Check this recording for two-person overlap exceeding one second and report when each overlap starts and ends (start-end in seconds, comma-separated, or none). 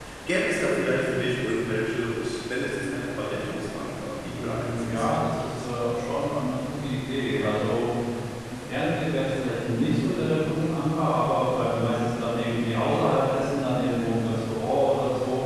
4.2-5.7